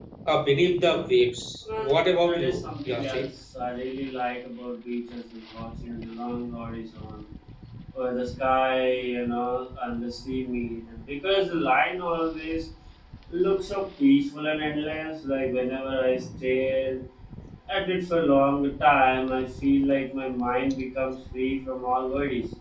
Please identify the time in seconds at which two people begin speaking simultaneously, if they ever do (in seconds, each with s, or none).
1.8 s